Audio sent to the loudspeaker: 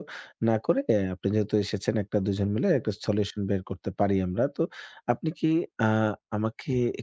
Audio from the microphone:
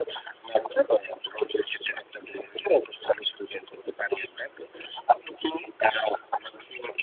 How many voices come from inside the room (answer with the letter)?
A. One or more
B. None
B